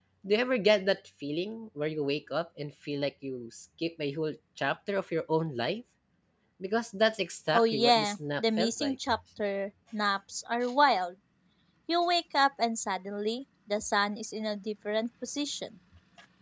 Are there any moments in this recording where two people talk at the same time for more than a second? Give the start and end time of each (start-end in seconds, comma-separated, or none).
7.5-9.0